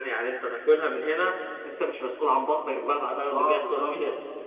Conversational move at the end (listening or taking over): taking over